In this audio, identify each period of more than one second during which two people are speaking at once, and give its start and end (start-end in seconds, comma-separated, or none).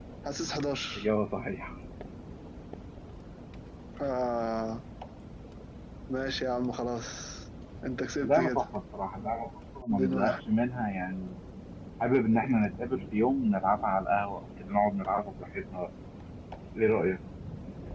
none